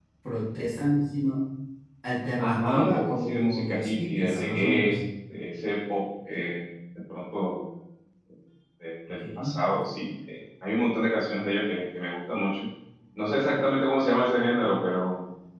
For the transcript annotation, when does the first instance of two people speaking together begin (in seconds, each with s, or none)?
2.4 s